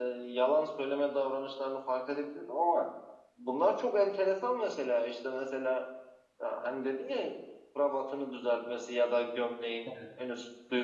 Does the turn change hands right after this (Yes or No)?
No